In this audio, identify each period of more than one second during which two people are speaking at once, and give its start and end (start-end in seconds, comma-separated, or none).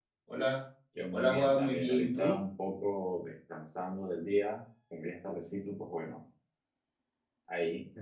1.1-2.4